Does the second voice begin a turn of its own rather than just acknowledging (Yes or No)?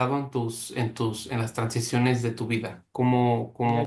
Yes